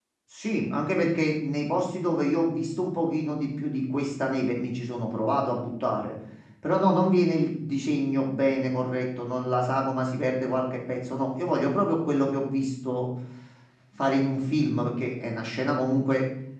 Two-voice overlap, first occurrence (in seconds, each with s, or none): none